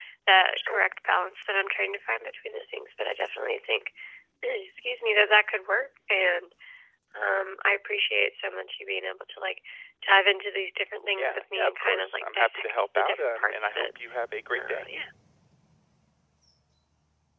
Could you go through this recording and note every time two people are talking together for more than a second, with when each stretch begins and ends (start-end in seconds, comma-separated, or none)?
11.2-13.8